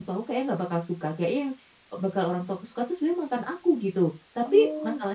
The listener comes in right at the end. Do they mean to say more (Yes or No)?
No